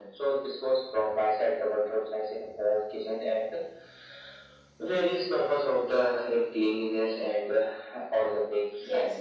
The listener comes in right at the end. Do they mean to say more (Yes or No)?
Yes